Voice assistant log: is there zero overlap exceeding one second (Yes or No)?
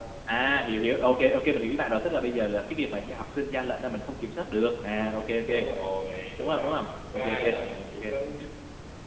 Yes